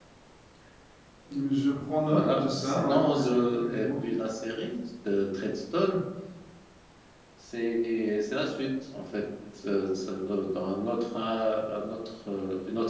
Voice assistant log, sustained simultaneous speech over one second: present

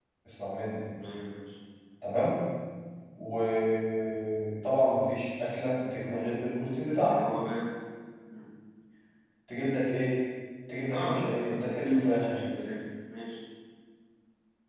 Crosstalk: present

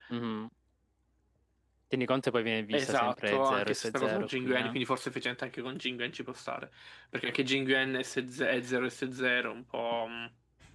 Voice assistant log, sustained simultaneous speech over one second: present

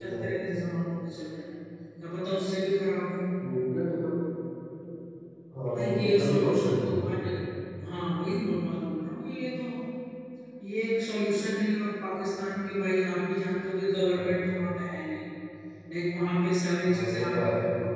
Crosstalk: present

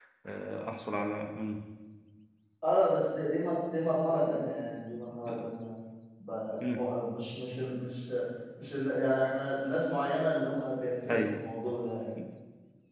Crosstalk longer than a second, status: none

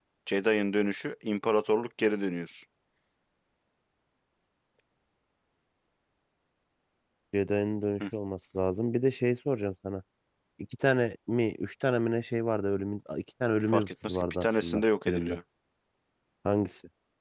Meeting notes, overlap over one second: present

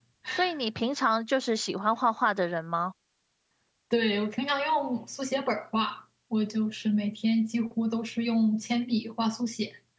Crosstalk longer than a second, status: none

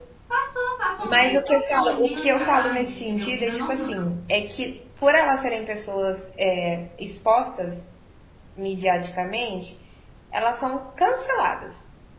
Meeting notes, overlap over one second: present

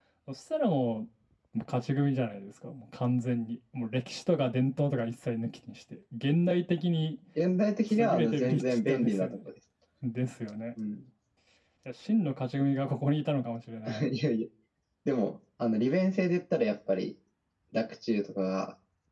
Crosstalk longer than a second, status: present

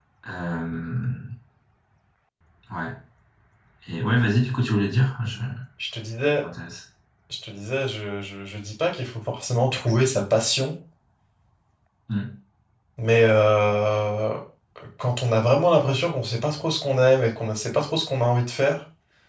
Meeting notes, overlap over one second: none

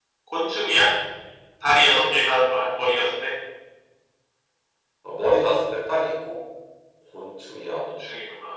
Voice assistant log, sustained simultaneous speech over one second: none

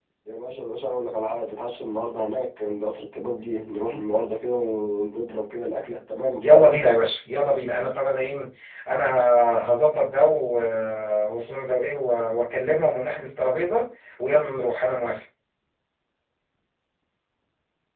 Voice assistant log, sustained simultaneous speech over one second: none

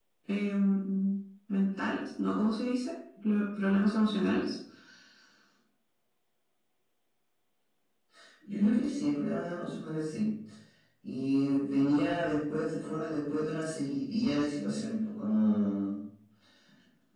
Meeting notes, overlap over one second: none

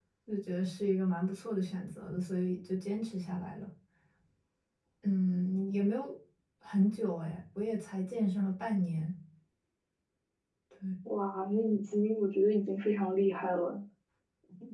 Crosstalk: none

